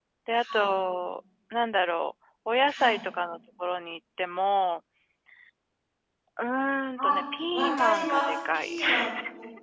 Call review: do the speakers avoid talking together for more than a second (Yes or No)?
No